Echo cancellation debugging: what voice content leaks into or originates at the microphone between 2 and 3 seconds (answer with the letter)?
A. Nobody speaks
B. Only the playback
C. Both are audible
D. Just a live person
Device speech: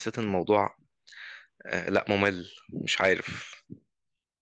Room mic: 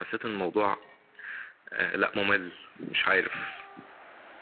B